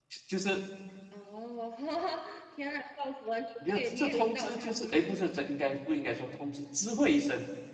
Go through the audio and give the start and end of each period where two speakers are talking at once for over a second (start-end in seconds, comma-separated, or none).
3.7-5.3